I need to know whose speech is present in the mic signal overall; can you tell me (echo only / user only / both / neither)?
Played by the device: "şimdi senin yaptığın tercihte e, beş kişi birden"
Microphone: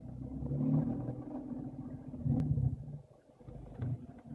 neither